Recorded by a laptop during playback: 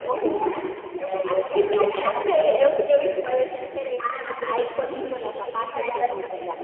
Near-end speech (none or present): present